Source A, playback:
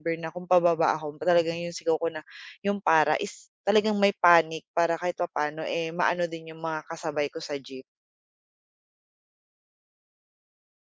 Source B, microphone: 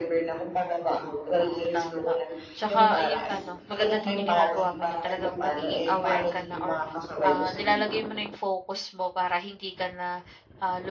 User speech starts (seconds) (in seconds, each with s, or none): 1.4 s